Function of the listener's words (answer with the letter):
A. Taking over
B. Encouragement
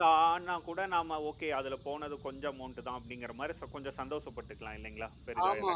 A